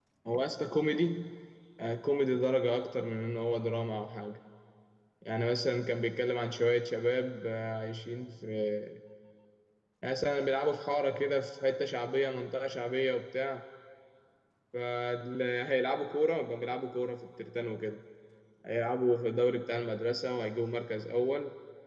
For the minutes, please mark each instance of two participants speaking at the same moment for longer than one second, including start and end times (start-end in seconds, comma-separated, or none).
none